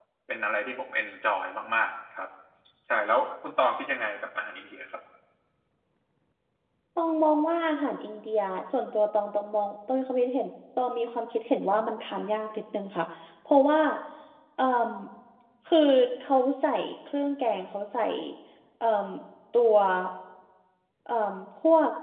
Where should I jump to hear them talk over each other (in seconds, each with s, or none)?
none